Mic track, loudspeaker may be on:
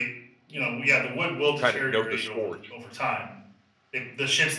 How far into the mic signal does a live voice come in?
1.6 s

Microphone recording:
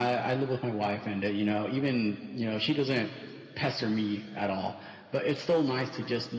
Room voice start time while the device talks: none

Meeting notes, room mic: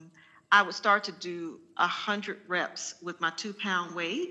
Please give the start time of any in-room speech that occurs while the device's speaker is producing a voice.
none

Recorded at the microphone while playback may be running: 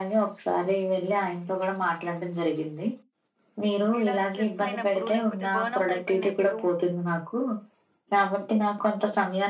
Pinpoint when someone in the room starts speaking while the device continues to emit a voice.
4.0 s

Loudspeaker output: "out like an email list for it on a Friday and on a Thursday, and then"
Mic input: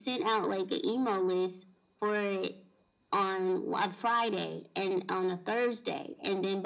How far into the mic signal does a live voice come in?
none

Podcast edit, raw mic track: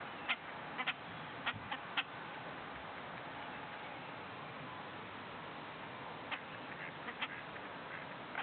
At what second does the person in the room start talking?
none

